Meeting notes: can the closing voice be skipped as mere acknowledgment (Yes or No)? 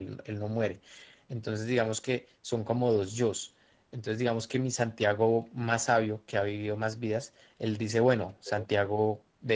Yes